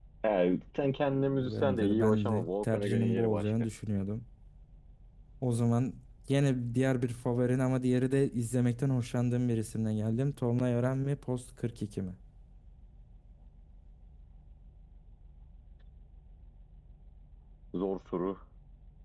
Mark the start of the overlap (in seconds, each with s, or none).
1.4 s